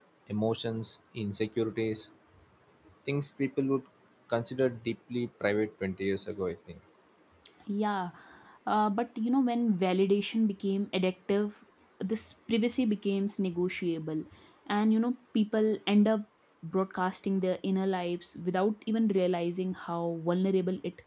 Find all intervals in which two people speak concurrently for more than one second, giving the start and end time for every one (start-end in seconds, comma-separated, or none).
none